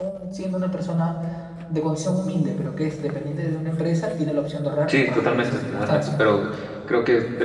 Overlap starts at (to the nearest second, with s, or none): 5 s